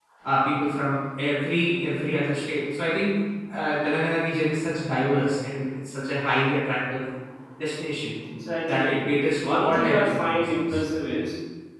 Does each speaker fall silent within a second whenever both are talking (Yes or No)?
No